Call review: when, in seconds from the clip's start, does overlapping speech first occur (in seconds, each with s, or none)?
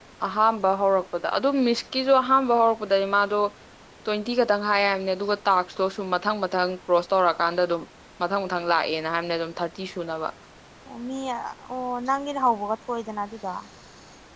none